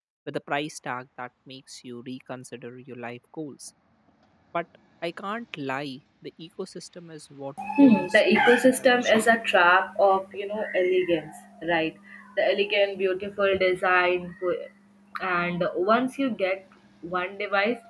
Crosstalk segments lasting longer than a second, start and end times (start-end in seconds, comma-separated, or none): 7.8-9.2